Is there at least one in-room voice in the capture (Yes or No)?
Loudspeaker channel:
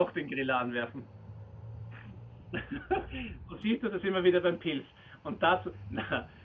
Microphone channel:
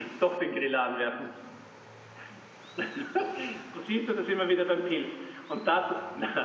No